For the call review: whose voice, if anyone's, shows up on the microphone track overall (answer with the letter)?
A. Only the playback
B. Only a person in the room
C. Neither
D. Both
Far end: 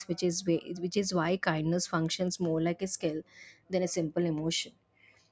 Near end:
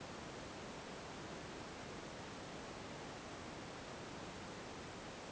C